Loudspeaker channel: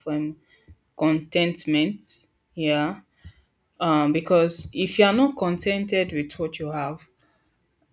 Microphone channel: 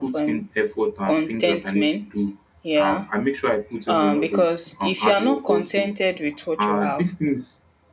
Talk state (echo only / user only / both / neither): both